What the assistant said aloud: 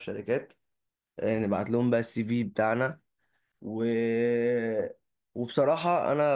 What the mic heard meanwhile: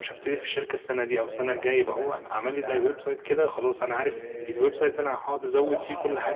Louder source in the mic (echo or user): user